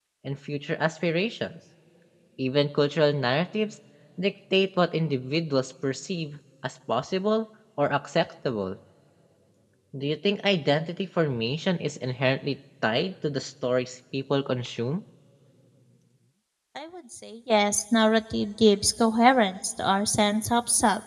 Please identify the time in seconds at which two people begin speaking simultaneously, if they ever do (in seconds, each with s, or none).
none